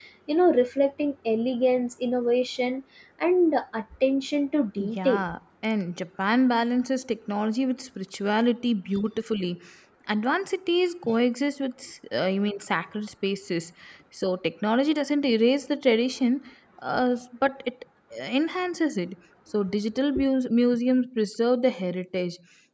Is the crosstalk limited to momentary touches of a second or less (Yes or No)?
Yes